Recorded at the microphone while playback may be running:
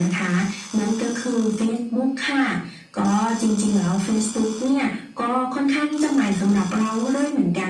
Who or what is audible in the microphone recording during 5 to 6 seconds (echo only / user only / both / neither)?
echo only